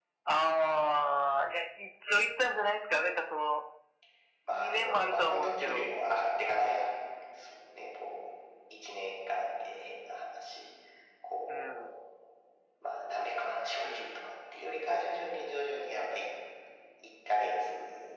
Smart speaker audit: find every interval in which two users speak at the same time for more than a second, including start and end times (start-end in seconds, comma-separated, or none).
4.5-5.9